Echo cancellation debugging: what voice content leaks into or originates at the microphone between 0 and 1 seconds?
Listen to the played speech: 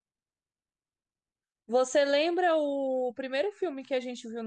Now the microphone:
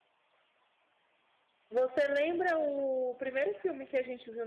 neither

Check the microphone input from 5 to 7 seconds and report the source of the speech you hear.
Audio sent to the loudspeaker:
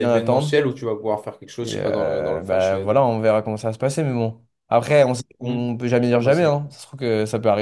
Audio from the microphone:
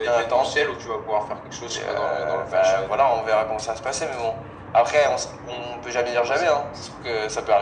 echo only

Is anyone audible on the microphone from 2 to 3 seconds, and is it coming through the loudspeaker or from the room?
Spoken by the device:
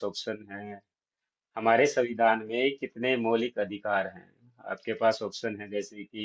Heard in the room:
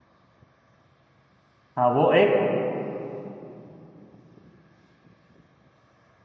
user only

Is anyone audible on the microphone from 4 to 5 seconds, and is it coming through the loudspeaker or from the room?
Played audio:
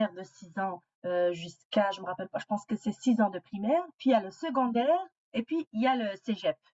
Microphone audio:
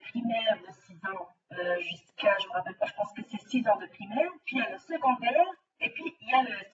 echo only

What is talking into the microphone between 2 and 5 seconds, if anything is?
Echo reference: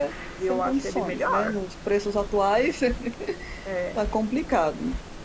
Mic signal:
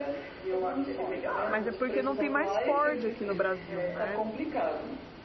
both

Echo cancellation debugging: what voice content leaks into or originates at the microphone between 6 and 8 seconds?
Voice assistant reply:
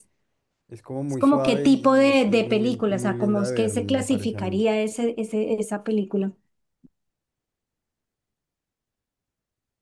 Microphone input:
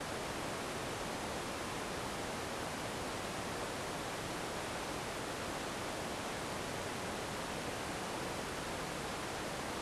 neither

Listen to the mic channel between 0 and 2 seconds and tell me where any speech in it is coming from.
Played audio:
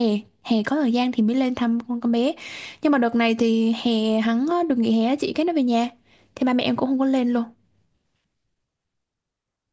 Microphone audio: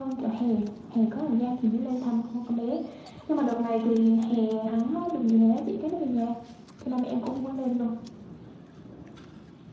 echo only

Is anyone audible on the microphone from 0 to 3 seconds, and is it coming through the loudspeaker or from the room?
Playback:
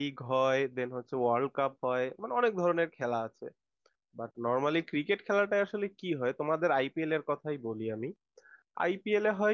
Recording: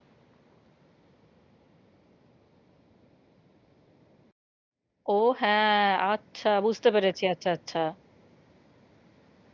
neither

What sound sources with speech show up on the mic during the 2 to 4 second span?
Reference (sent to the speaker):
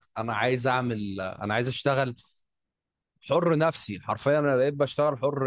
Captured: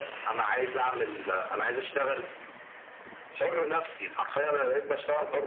echo only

